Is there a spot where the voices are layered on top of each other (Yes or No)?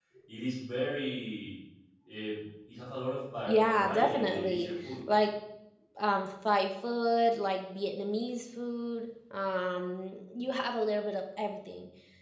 Yes